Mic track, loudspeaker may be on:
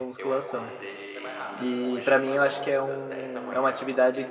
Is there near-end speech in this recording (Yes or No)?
Yes